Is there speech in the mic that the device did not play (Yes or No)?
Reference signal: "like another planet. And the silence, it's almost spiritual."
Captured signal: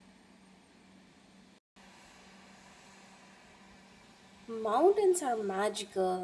Yes